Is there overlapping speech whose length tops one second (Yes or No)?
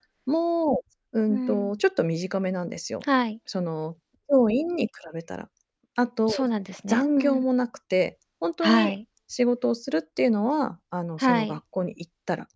No